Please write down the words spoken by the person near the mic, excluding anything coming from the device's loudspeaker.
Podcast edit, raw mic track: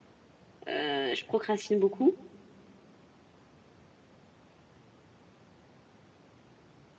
euh, je procrastine beaucoup,

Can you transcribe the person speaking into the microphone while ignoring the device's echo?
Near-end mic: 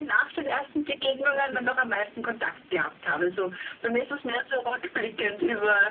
okay.

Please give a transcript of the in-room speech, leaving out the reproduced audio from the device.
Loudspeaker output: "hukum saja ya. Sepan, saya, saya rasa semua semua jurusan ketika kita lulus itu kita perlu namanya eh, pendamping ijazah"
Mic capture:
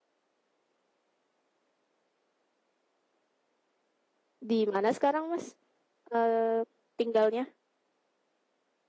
Di mana sekarang, Mas? Eh tinggalnya?

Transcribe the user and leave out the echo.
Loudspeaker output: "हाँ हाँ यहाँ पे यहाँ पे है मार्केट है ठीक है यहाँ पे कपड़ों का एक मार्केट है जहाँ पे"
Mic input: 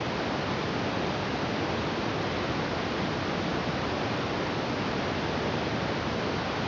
none

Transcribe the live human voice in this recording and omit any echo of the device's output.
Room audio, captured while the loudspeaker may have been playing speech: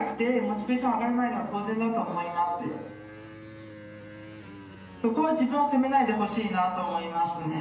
none

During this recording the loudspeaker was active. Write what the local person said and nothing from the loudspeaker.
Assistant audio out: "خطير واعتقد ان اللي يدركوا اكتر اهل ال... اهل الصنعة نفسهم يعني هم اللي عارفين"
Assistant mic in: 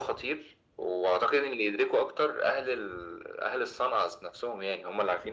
none

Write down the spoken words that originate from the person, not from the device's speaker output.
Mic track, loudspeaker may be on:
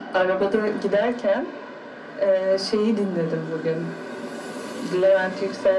none

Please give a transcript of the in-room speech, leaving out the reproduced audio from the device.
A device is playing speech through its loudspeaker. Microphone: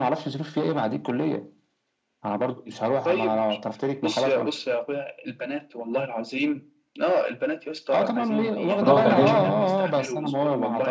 وانا بكلمها

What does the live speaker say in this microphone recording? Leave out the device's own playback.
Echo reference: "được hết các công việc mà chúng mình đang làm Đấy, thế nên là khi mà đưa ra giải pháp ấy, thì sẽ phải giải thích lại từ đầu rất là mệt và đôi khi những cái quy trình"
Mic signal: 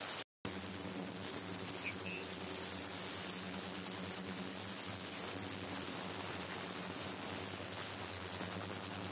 none

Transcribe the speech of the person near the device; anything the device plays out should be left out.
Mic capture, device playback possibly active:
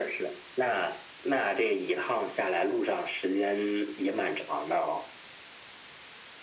none

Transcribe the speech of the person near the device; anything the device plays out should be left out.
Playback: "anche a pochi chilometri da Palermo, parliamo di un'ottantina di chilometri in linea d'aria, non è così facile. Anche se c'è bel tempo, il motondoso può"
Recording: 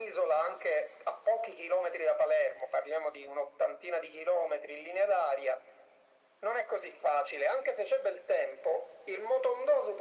none

